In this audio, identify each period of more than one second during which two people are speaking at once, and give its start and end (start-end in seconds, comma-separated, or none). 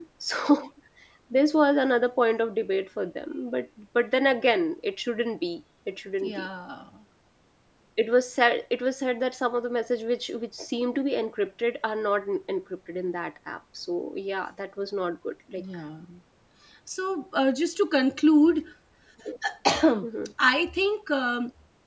none